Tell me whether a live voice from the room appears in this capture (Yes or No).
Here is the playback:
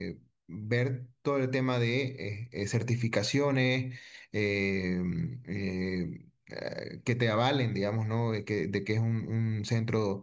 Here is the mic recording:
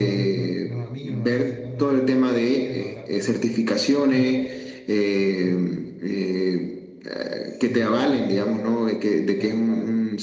Yes